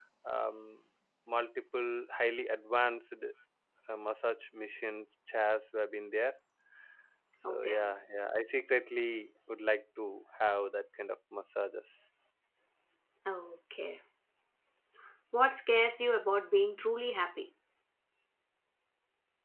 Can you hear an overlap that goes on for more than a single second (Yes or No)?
No